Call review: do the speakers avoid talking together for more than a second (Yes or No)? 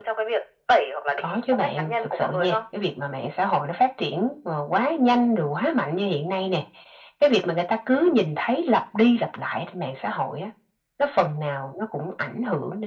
No